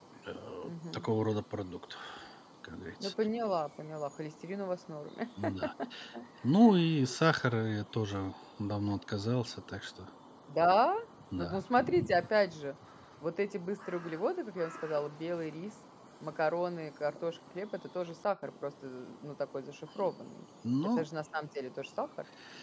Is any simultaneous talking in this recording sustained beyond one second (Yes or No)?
No